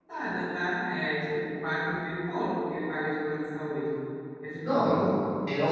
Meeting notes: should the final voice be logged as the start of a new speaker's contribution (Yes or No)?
Yes